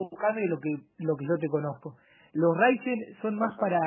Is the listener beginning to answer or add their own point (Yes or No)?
No